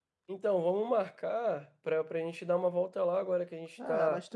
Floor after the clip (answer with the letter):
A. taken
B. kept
A